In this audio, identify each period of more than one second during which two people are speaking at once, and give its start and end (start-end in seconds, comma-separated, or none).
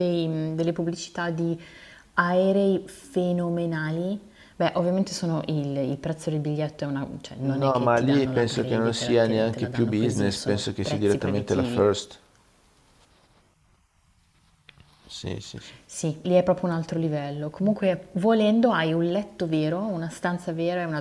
7.4-11.9